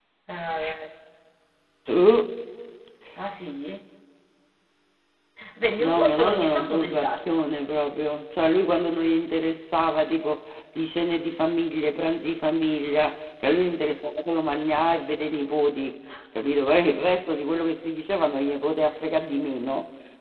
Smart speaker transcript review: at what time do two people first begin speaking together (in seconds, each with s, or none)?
5.8 s